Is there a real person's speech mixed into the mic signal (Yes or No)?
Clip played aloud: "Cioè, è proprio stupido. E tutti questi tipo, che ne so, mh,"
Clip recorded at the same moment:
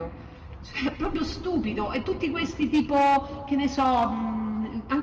No